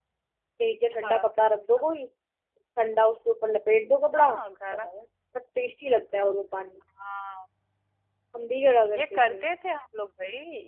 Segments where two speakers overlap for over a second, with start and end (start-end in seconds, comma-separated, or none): none